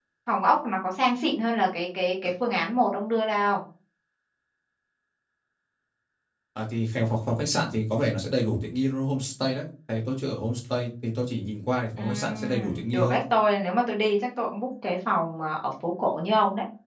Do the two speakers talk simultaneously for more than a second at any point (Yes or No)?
Yes